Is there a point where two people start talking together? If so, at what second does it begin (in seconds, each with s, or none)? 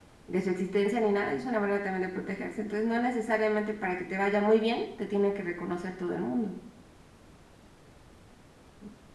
none